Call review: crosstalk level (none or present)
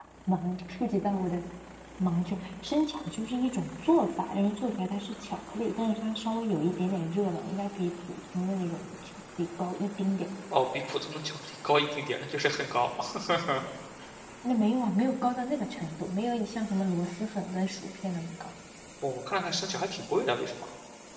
none